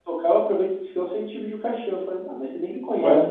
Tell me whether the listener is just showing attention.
Yes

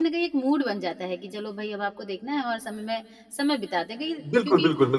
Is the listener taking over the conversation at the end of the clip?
Yes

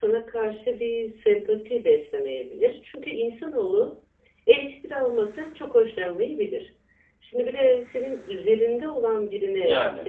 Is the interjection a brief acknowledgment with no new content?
Yes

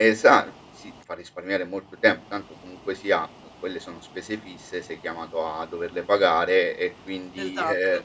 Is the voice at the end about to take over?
No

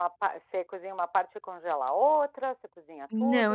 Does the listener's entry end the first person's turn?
Yes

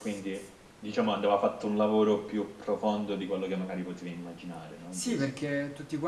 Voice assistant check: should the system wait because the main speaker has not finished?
No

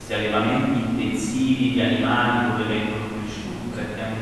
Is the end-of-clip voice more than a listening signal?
No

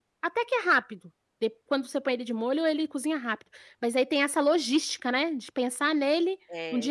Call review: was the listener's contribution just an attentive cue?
No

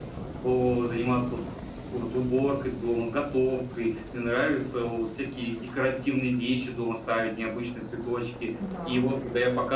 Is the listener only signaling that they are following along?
Yes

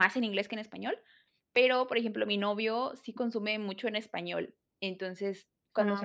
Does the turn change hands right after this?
No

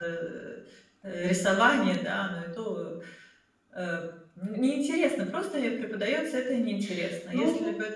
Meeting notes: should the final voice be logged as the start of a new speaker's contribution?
No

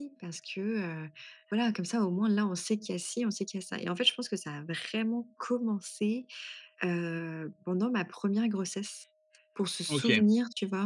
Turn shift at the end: No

